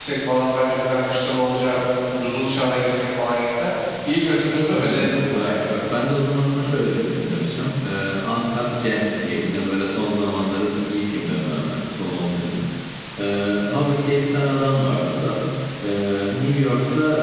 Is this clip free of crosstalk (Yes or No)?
No